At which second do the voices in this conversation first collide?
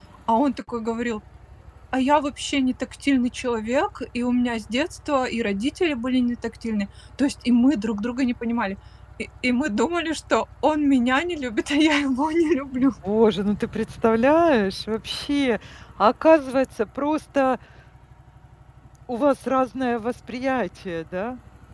none

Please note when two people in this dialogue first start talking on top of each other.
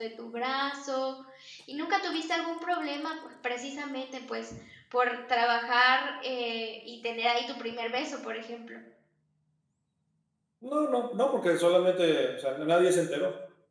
none

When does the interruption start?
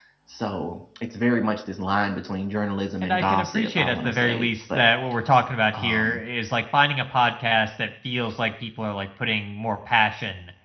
3.0 s

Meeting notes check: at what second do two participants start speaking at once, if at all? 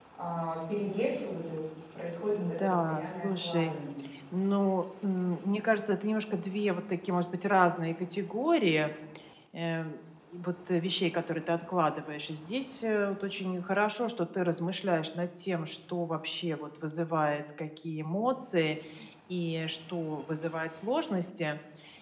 2.4 s

